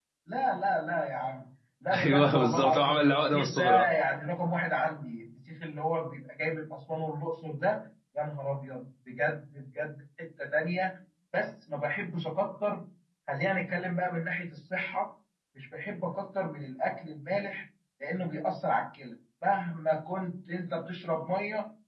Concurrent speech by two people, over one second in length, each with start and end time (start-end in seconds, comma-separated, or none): 2.0-3.8